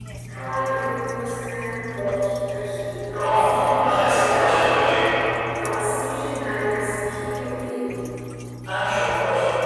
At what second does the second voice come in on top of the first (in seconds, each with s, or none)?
3.1 s